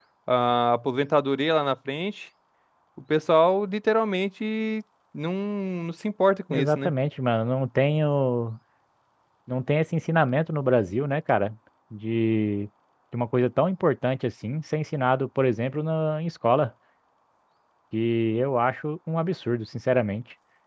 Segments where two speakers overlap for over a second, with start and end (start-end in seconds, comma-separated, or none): none